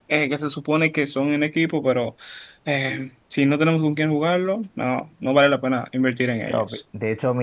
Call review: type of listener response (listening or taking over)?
taking over